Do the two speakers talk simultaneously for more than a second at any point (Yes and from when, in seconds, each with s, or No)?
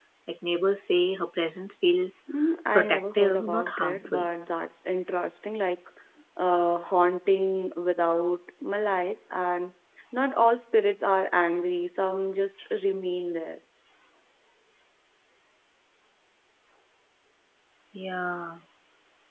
Yes, from 2.8 s